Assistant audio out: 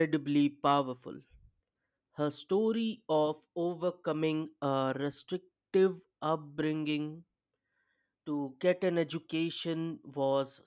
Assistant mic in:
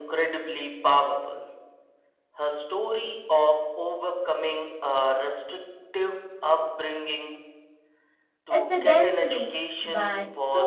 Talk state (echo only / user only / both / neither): both